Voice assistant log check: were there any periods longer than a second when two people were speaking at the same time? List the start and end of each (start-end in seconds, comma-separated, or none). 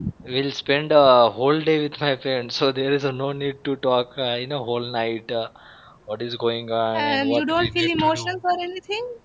6.9-8.4